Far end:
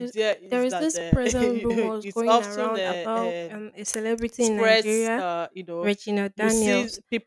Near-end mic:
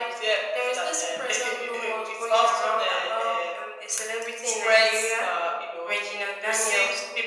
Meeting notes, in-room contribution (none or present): none